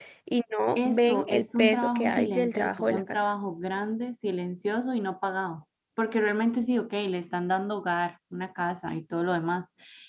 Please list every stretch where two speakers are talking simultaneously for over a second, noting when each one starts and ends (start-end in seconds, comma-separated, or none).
0.8-3.2